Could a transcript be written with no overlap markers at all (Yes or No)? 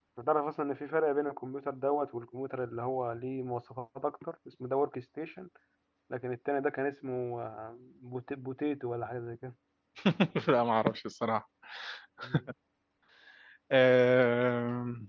Yes